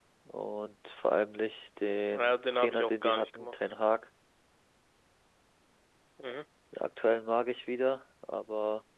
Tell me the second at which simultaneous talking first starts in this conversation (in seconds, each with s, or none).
2.1 s